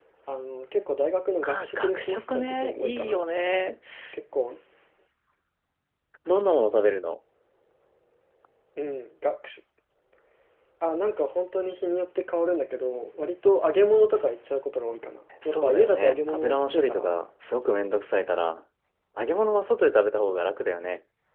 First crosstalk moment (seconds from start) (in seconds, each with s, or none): 1.4 s